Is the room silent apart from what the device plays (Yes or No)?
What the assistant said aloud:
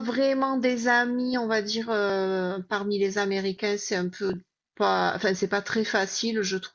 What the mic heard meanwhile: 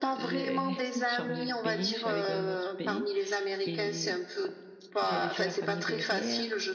No